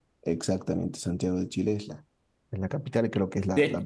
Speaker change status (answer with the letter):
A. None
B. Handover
A